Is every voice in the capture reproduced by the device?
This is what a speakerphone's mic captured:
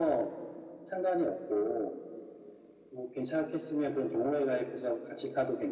Yes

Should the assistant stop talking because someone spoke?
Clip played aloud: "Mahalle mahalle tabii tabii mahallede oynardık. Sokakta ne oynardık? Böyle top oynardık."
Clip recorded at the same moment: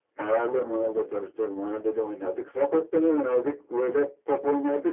No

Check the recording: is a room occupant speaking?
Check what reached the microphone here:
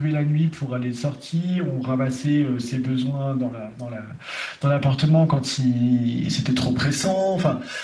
No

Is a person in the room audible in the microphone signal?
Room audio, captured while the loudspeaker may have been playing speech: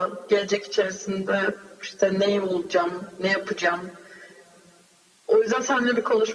No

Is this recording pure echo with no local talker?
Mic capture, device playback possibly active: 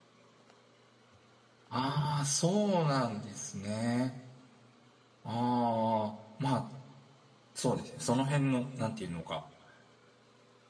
No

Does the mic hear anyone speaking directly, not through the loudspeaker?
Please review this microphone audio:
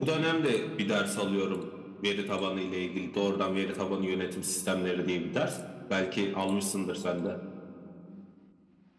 No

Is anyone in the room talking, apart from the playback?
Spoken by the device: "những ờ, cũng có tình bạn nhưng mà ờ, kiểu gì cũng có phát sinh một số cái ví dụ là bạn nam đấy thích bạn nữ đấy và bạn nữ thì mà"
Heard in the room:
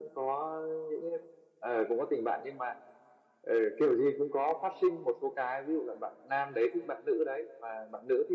No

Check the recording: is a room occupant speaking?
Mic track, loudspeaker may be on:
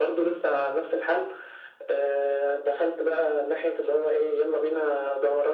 No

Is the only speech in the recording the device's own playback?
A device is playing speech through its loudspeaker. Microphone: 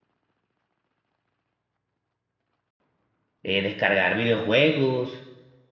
No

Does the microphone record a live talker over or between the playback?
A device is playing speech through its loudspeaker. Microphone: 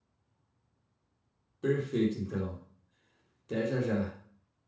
Yes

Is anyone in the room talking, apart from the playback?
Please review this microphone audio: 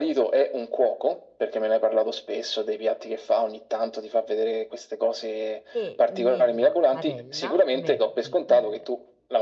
Yes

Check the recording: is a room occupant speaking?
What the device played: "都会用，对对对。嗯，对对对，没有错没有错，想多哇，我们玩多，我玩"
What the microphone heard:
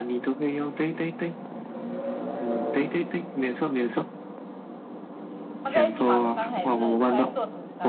Yes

